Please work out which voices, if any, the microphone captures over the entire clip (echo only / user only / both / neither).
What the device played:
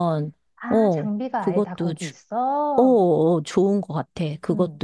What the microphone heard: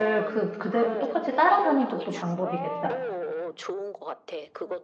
both